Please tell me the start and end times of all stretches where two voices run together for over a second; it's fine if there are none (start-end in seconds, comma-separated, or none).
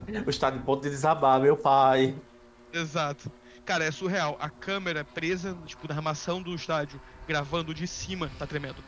none